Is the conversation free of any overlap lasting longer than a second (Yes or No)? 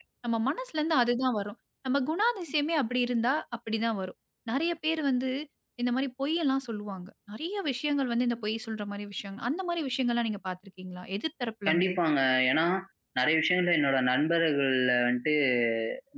Yes